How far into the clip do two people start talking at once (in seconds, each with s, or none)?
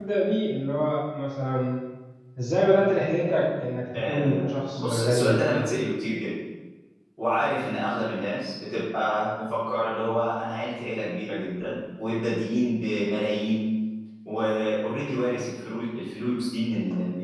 3.9 s